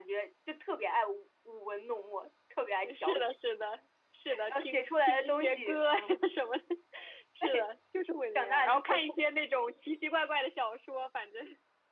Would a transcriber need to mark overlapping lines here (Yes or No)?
Yes